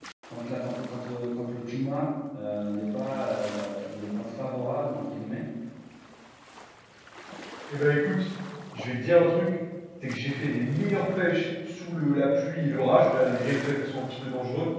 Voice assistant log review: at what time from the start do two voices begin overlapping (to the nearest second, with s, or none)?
none